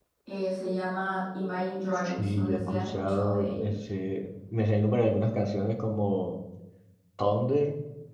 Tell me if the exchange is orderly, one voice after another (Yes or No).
No